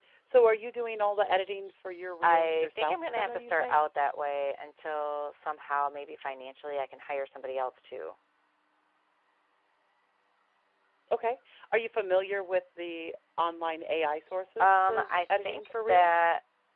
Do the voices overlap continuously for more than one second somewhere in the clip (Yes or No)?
Yes